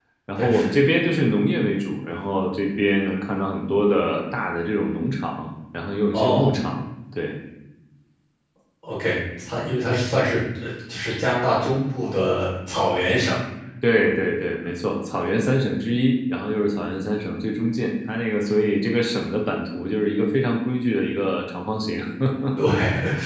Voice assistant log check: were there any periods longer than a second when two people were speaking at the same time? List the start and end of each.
none

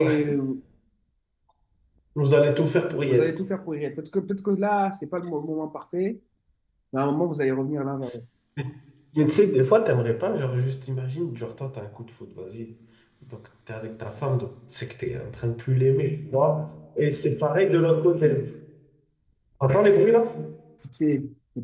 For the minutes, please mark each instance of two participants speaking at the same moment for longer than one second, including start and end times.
none

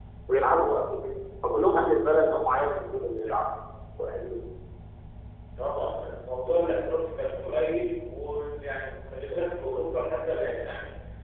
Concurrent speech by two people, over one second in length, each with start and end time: none

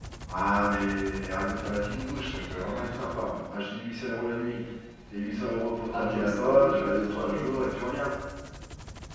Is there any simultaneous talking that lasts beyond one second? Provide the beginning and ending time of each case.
5.9-7.5

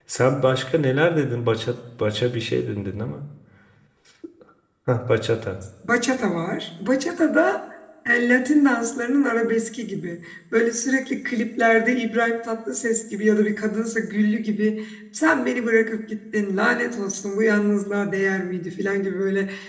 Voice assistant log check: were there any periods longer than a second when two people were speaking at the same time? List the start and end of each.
none

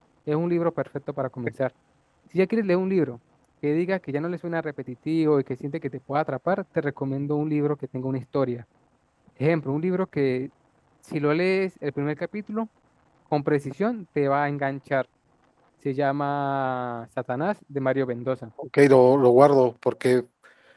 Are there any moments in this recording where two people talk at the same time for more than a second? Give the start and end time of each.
none

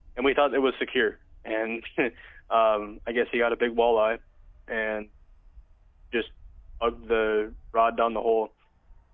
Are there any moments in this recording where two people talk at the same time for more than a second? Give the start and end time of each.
none

